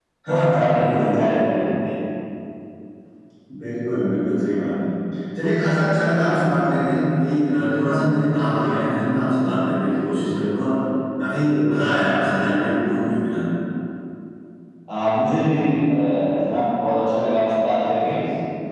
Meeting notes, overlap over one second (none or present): present